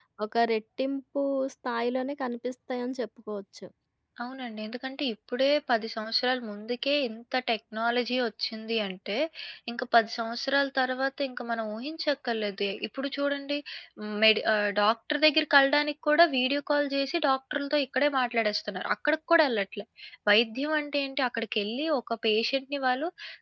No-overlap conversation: Yes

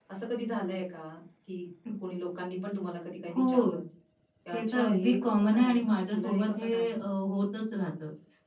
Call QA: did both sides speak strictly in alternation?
No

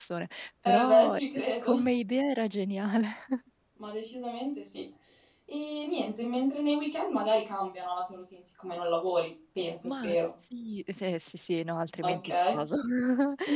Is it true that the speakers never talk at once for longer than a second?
Yes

